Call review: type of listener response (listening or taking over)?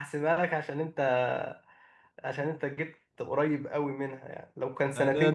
taking over